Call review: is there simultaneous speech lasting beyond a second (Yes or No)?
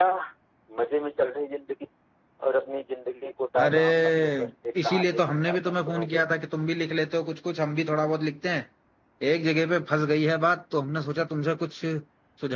Yes